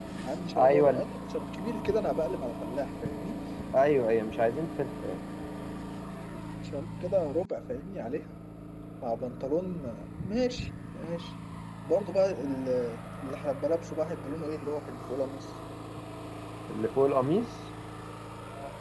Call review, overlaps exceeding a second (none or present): none